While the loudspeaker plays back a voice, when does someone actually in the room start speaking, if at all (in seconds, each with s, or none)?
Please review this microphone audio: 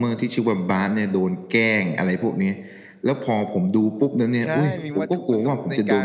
4.4 s